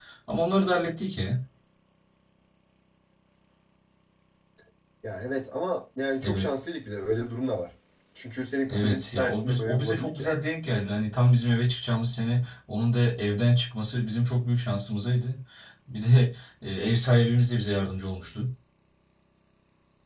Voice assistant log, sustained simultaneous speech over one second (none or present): present